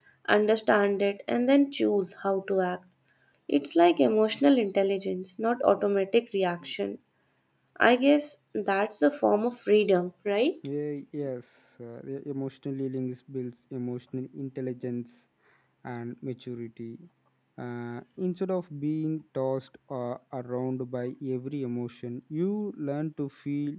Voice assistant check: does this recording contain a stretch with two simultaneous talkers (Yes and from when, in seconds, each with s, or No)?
No